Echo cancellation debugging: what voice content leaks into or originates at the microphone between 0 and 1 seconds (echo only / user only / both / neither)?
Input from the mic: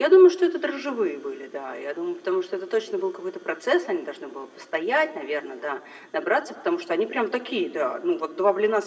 echo only